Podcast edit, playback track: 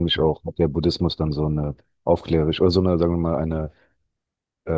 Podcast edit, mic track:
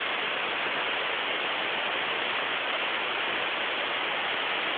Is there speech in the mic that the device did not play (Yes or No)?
No